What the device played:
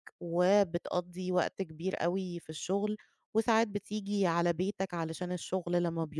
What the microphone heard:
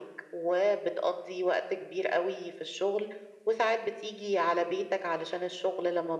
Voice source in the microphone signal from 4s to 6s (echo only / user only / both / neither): echo only